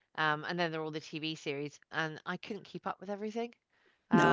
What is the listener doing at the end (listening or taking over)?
taking over